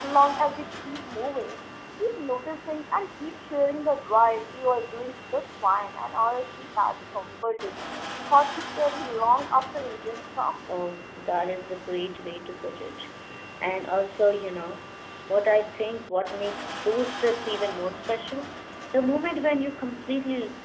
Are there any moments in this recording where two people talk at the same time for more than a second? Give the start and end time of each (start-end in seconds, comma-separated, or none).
none